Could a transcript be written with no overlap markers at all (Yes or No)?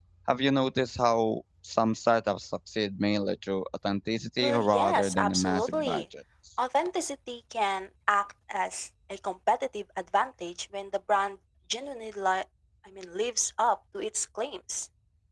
No